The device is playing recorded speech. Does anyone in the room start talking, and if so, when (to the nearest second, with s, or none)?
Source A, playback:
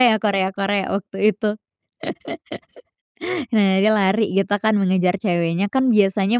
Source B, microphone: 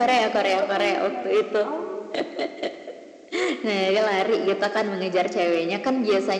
1 s